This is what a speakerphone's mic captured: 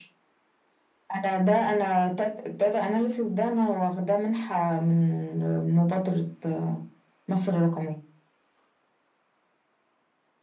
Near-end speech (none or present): none